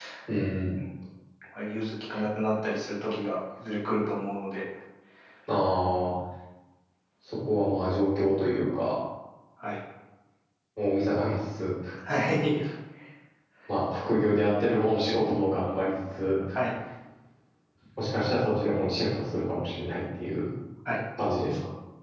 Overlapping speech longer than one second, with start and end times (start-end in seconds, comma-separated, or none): none